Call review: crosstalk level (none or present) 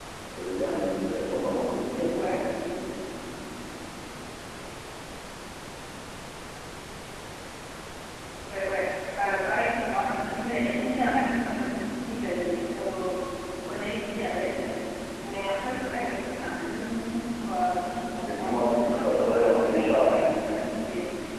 present